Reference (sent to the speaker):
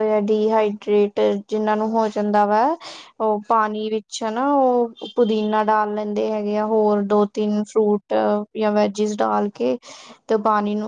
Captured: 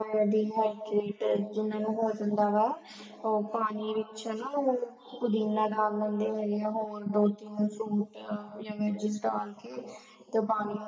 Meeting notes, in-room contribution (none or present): none